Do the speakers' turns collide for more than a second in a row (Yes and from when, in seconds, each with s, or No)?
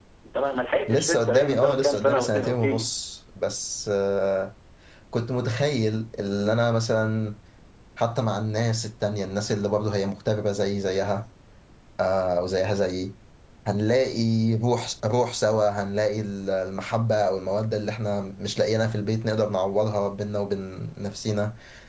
Yes, from 0.9 s